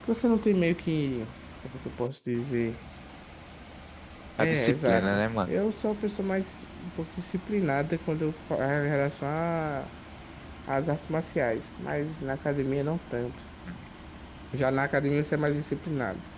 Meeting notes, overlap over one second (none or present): present